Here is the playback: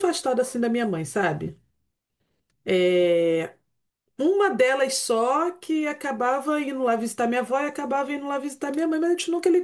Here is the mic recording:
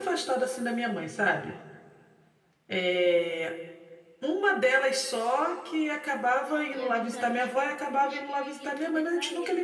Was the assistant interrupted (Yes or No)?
Yes